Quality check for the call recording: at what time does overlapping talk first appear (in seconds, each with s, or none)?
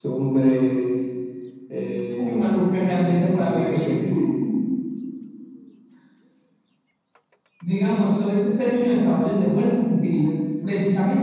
2.1 s